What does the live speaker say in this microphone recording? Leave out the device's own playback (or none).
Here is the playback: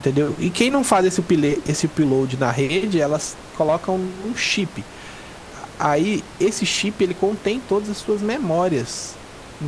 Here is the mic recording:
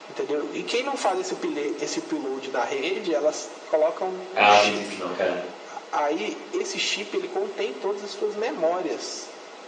Ah, eu acredito que não, cara.